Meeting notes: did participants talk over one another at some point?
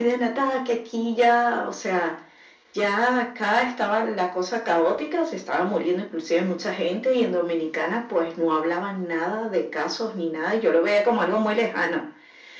No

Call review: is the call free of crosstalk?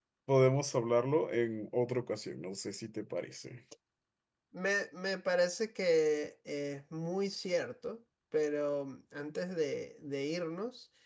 Yes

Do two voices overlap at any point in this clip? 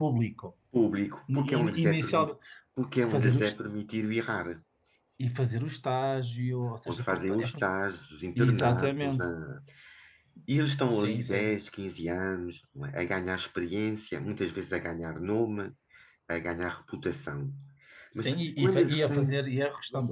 Yes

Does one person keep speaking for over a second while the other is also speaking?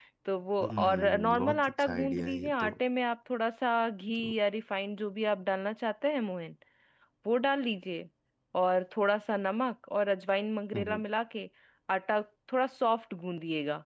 Yes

